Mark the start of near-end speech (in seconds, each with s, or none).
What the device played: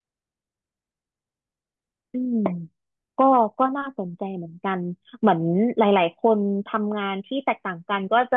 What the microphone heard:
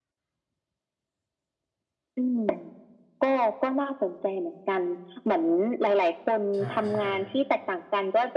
6.5 s